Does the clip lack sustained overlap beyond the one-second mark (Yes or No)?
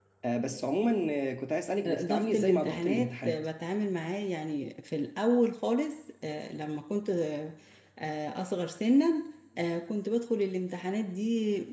No